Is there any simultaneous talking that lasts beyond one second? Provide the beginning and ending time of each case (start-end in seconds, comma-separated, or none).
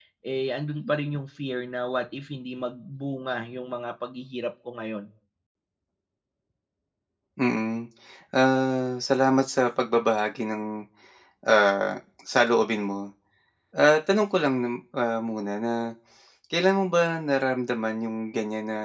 none